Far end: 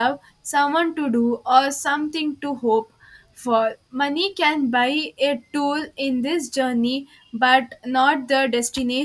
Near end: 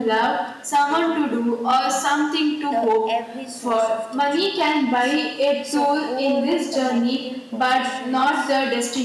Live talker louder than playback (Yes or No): No